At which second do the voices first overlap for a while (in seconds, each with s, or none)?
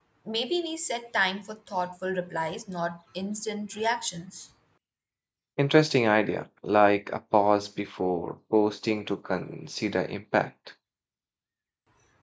none